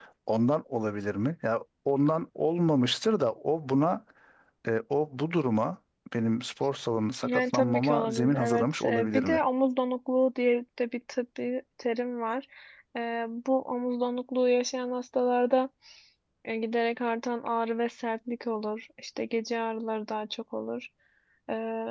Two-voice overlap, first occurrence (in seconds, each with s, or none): 7.2 s